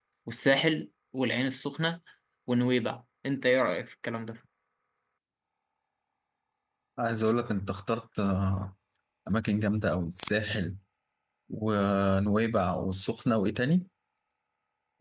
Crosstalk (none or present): none